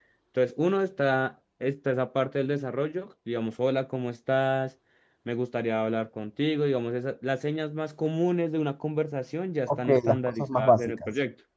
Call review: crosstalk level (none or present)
present